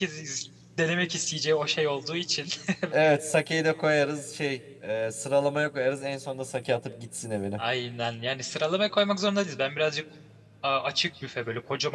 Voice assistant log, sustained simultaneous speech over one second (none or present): none